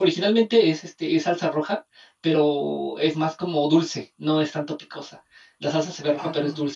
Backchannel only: Yes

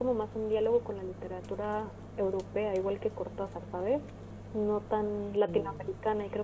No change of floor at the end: Yes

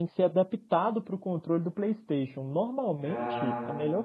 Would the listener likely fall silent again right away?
Yes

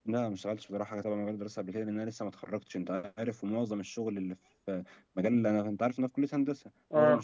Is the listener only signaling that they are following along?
Yes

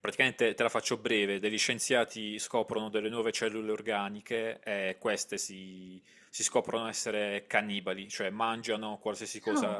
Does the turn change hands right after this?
No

